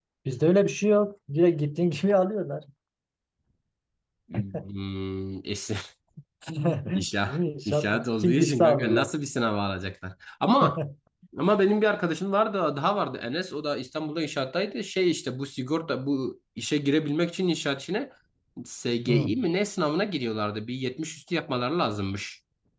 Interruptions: present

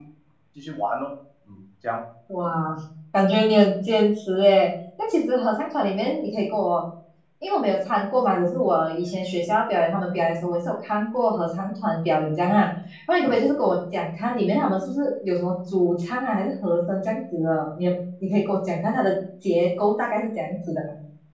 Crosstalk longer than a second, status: none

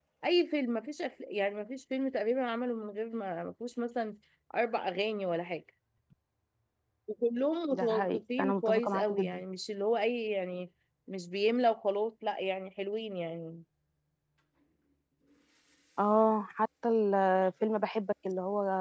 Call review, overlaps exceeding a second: present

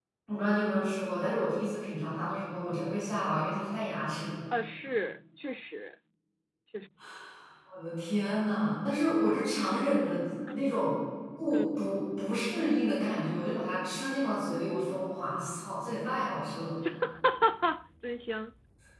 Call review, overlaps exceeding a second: none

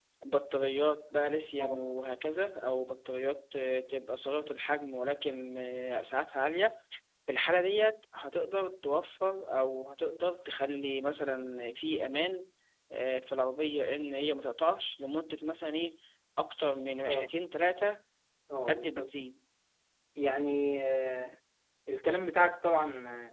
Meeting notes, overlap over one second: none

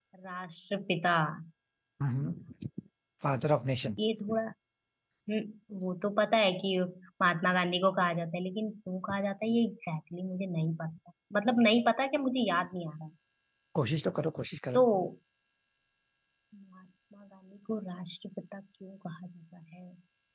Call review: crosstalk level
none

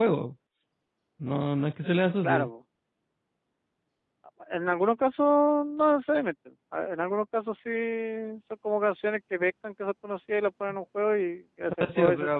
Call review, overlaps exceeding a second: none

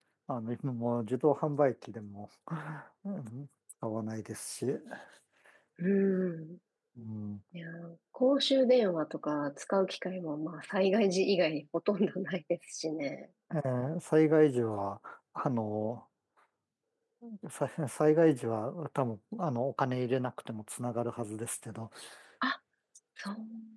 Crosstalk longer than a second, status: none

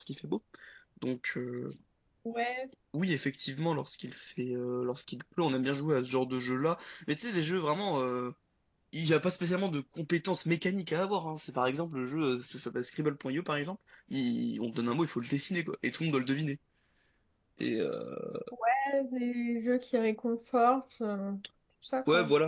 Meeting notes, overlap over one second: none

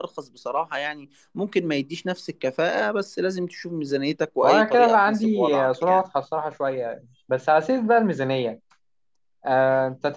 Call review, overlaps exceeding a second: present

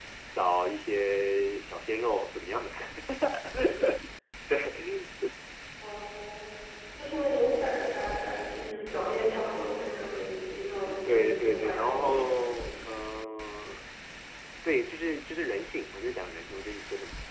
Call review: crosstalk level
present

